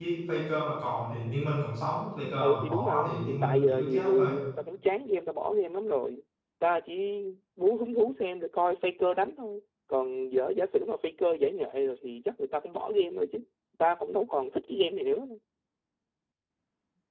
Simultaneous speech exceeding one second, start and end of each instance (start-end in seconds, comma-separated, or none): 2.4-4.3